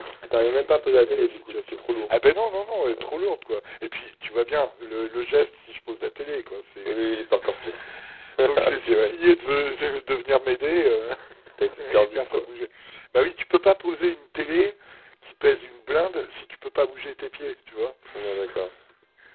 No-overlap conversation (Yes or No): No